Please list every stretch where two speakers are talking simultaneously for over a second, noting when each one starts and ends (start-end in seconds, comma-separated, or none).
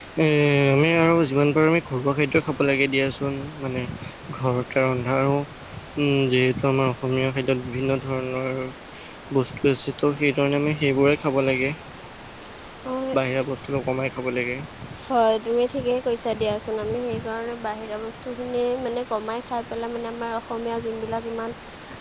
none